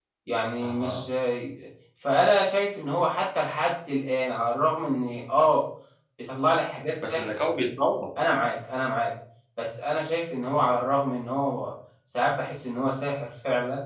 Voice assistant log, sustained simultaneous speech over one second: none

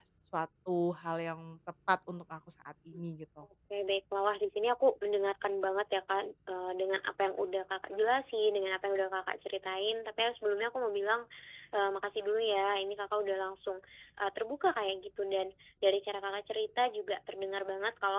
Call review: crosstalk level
none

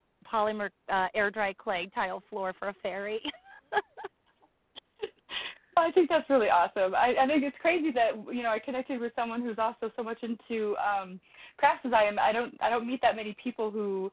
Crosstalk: none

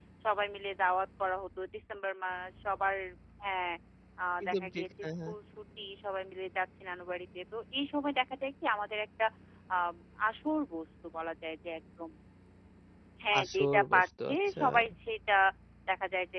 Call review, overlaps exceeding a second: present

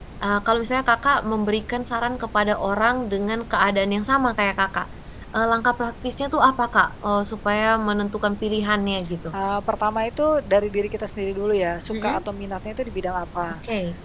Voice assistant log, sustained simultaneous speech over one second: none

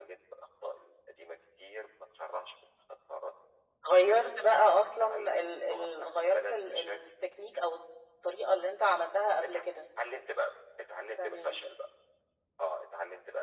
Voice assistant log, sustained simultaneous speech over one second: present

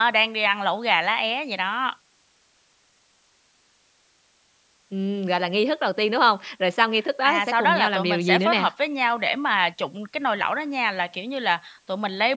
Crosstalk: present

